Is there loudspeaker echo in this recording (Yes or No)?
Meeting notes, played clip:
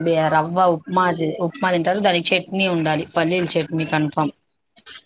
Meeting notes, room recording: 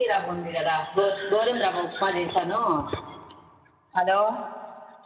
No